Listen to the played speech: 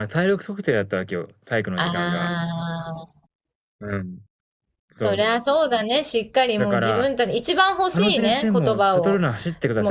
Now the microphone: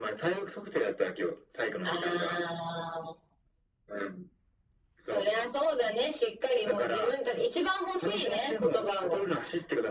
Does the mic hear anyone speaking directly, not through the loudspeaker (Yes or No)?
No